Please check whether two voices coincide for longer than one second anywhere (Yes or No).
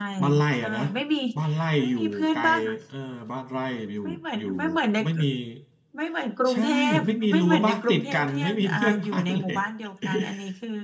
Yes